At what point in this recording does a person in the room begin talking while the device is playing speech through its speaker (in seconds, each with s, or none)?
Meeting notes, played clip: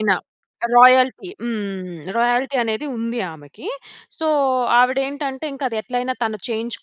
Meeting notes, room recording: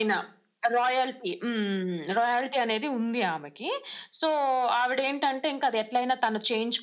none